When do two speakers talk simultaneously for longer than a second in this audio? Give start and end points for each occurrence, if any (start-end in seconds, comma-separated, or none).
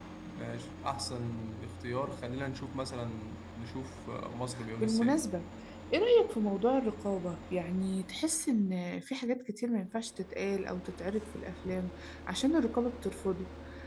none